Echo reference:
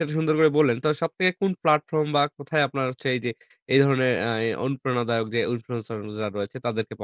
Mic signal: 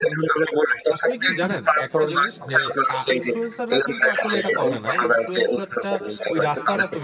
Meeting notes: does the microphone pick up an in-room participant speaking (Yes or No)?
Yes